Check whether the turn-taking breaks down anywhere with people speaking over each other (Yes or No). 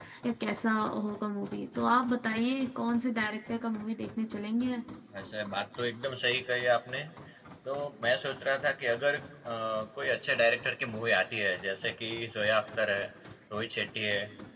No